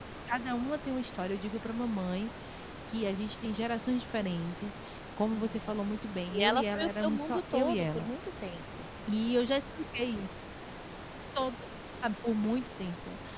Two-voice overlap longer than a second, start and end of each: 6.3-8.1

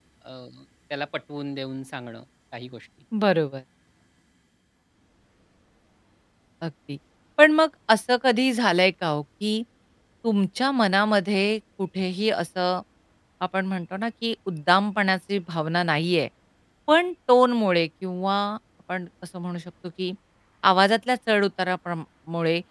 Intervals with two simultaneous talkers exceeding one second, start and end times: none

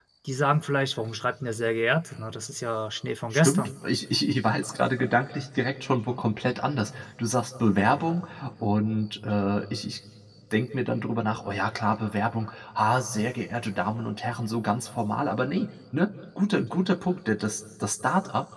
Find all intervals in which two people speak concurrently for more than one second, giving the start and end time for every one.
none

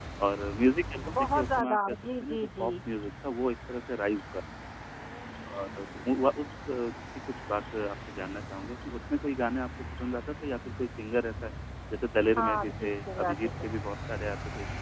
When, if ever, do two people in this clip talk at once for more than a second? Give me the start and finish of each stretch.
1.2-2.7, 12.4-13.7

